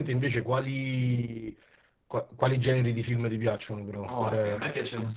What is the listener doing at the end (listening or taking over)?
taking over